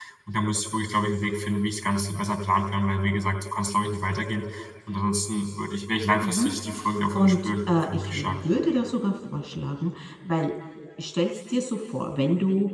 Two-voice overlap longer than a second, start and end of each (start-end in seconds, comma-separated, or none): 7.2-8.4